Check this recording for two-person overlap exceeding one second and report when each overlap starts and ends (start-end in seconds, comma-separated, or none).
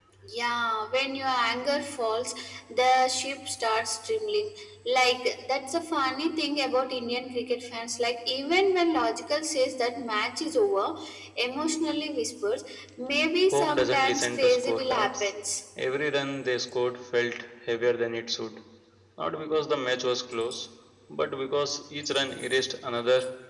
13.5-15.3